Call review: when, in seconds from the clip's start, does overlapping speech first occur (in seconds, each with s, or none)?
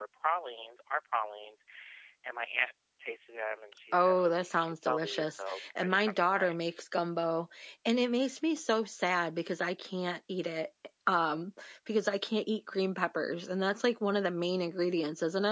3.9 s